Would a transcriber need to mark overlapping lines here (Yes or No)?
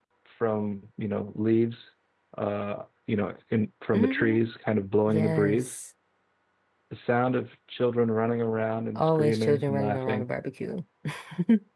Yes